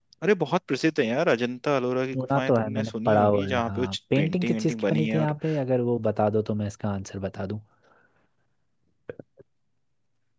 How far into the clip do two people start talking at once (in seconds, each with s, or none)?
2.1 s